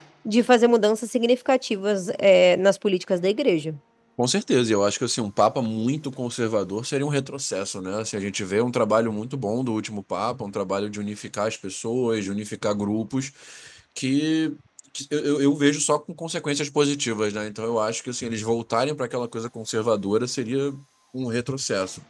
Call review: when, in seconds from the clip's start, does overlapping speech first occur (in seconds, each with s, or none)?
none